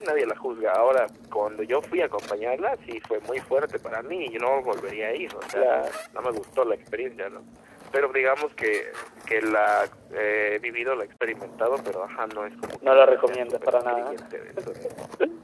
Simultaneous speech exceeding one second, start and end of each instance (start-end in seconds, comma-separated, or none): 12.9-14.2